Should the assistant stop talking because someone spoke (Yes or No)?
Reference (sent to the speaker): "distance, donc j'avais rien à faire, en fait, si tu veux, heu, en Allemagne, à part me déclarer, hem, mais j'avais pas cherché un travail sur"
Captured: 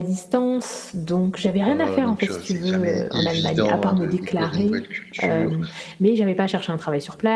Yes